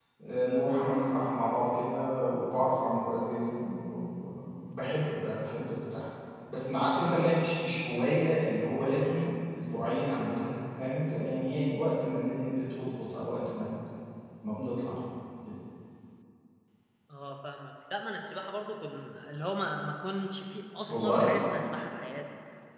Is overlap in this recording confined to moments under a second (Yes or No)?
Yes